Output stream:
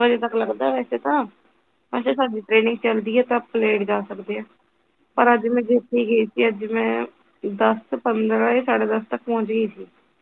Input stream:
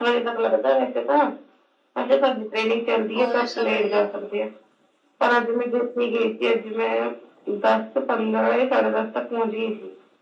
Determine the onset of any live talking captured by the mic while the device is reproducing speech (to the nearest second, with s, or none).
3 s